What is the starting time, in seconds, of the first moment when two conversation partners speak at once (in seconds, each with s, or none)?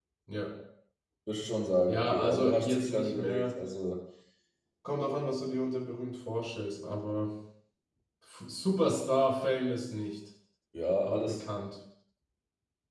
1.9 s